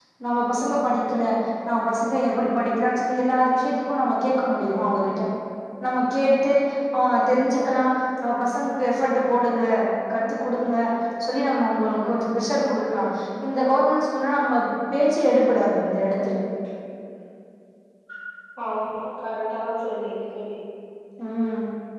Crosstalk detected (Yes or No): No